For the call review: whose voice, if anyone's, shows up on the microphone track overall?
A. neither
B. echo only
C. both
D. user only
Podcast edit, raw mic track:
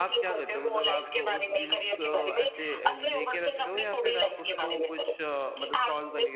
C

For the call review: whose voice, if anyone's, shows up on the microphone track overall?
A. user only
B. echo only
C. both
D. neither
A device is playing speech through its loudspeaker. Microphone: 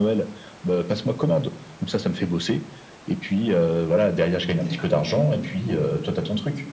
C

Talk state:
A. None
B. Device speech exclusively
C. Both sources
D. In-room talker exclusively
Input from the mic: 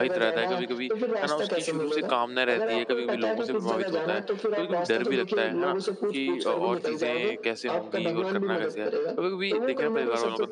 C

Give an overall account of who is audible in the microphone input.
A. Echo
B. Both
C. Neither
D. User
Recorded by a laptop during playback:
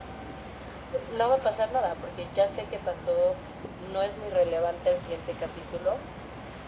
A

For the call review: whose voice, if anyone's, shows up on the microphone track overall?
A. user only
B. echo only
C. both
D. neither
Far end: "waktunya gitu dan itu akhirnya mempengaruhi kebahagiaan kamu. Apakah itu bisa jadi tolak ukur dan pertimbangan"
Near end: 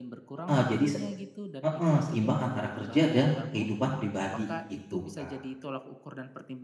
C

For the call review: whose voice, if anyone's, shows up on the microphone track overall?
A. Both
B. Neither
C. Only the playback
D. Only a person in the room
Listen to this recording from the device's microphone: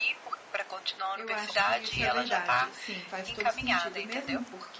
A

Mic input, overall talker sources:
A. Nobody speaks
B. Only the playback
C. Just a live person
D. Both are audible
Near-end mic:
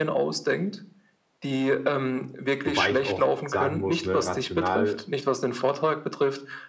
D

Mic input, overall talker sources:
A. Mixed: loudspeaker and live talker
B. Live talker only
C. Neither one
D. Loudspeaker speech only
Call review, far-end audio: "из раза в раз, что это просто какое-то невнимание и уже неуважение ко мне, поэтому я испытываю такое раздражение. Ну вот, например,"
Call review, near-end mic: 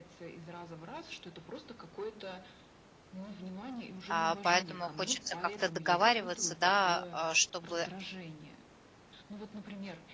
A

